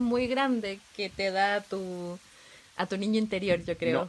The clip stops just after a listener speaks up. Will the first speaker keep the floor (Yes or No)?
No